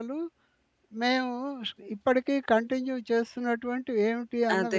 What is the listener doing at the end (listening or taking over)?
taking over